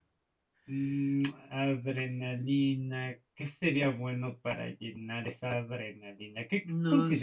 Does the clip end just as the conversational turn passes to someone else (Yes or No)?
No